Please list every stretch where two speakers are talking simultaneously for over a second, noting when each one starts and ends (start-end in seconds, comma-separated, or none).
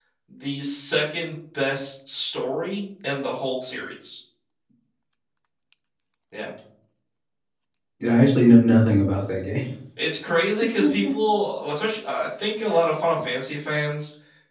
none